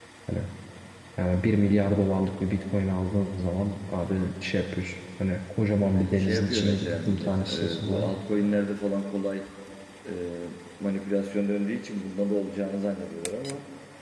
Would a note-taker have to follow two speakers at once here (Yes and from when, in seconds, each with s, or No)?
Yes, from 5.8 s